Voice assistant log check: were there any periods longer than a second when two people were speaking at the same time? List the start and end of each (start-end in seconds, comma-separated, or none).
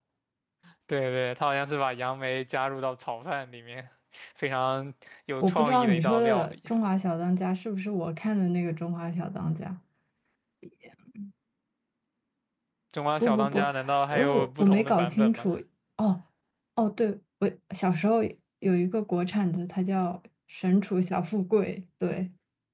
5.4-6.7, 14.1-15.5